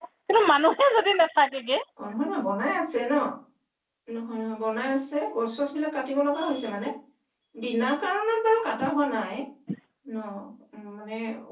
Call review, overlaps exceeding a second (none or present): none